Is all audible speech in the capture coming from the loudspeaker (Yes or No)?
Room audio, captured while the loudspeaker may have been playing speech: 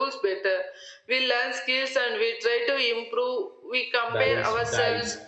No